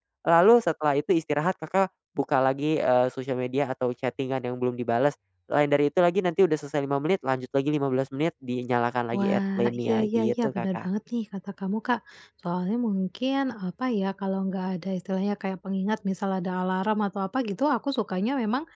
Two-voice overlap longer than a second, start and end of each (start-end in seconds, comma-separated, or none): 9.2-10.9